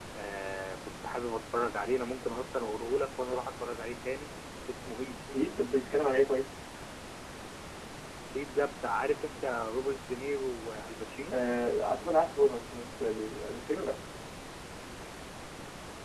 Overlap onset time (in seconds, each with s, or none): none